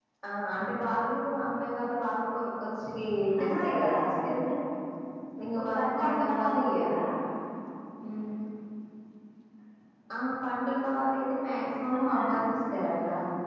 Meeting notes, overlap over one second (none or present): present